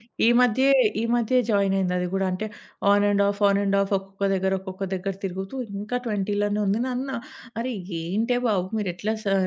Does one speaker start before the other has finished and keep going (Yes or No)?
No